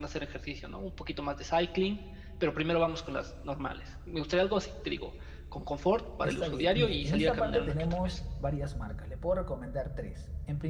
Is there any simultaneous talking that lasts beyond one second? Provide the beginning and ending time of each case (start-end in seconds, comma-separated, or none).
6.2-8.2